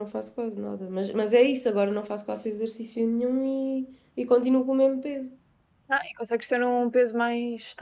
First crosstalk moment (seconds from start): none

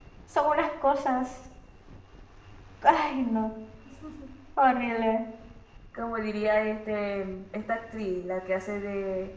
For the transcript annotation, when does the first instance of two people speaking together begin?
none

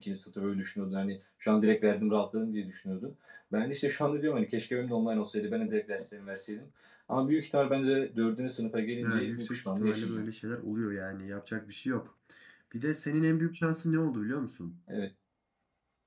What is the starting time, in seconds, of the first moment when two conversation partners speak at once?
9.0 s

